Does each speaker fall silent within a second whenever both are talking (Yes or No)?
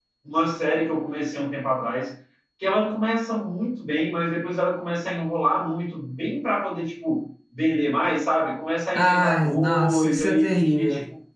No